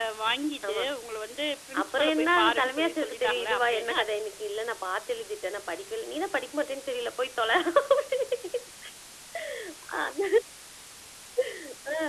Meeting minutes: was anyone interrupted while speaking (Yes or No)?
Yes